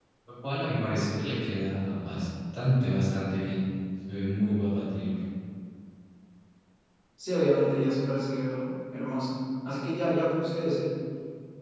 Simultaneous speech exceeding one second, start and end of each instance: none

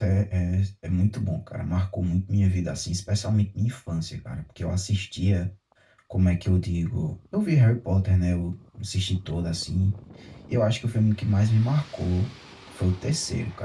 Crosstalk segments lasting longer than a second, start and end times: none

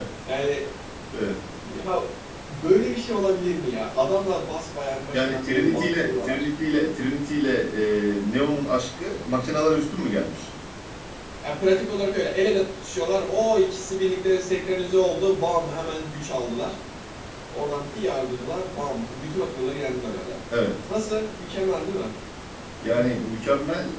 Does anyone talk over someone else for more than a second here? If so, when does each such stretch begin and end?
5.1-6.4

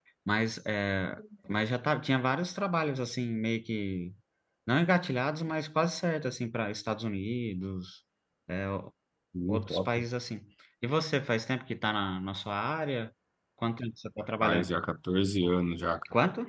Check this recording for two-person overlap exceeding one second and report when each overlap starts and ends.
none

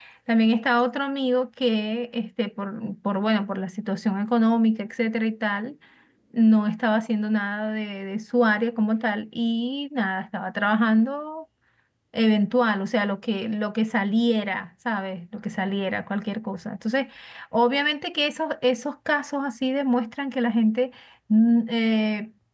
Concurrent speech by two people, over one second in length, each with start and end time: none

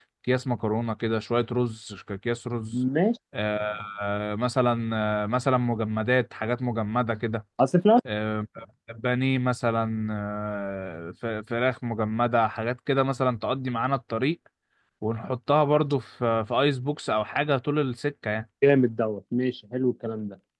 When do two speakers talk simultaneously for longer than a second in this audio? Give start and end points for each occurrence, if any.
none

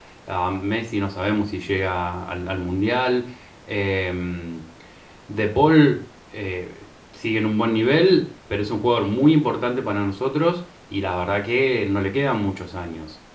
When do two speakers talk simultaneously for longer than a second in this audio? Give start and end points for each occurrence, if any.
none

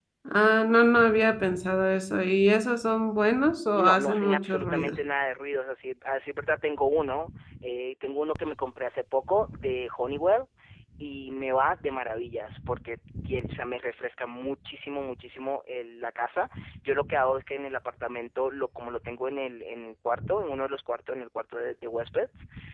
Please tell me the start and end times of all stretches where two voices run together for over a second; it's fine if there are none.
3.8-5.0

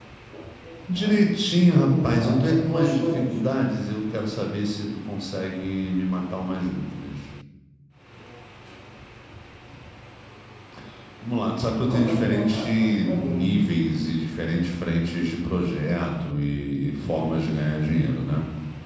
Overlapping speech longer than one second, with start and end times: 1.7-3.4, 11.8-13.4

